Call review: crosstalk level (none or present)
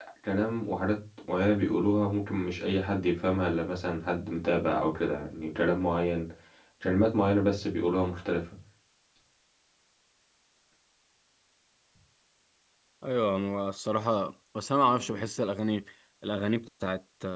none